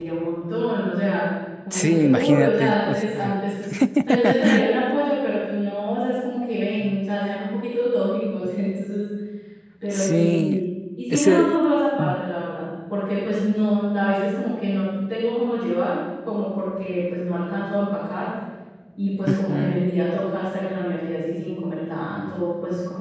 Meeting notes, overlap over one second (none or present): present